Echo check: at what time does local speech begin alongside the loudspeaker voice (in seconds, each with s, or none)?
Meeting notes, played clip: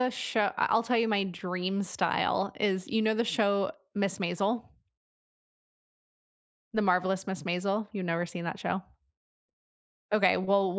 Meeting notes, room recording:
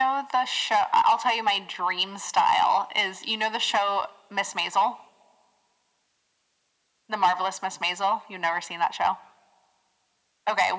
none